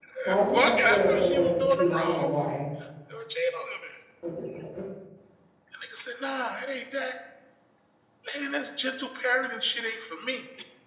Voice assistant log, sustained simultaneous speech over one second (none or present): present